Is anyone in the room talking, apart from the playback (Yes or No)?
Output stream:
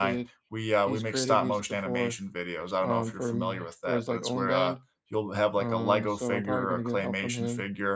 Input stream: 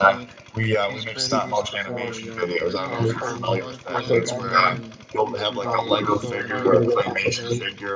Yes